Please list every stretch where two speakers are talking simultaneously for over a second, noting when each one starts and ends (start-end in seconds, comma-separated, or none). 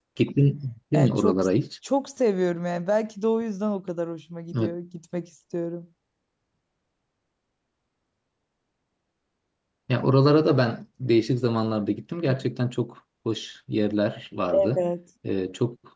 none